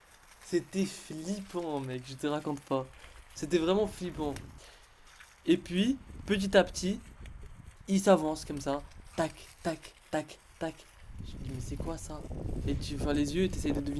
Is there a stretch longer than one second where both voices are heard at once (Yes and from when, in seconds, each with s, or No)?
No